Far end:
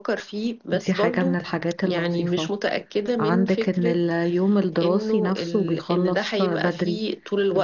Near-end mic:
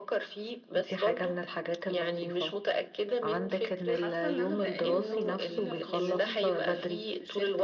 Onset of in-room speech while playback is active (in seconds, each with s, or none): 3.9 s